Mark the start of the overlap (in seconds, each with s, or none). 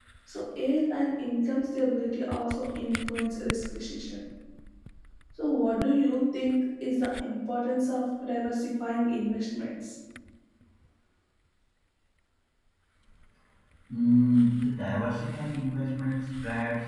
none